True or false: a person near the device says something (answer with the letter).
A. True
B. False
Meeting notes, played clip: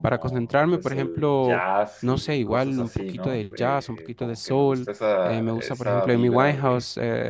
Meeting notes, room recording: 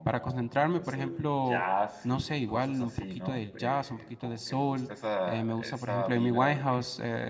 B